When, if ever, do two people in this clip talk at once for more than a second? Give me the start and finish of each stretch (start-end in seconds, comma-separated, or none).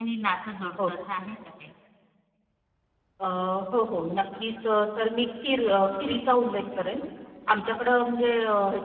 none